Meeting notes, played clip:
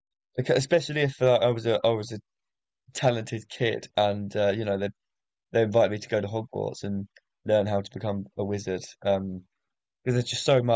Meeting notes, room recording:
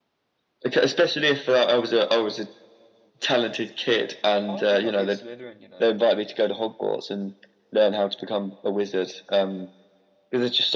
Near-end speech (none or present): present